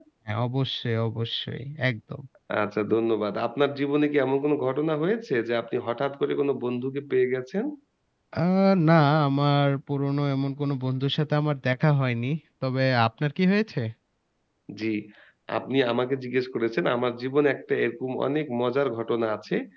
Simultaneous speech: No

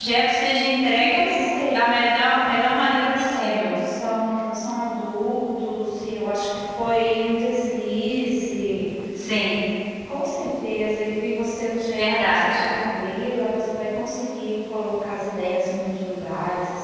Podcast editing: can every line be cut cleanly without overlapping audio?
No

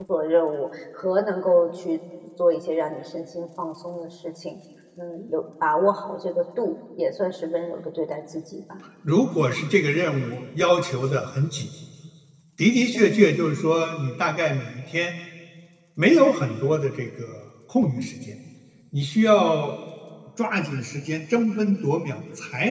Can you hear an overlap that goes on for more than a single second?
No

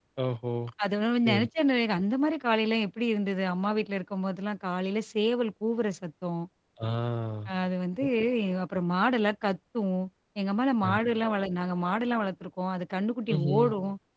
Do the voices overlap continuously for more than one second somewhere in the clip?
No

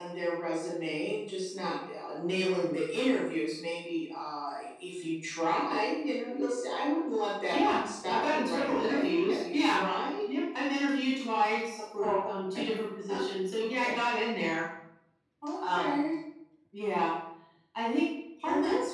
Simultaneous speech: Yes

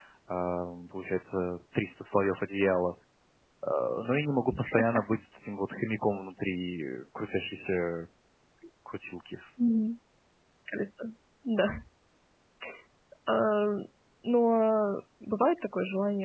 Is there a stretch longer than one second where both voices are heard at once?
No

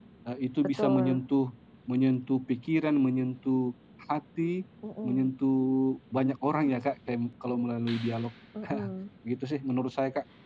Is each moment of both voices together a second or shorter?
Yes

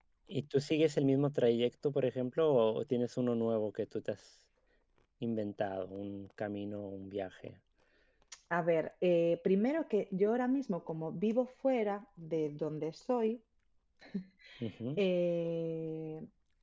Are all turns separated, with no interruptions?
Yes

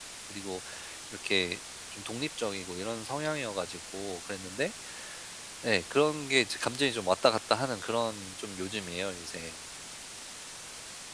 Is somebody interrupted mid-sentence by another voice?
No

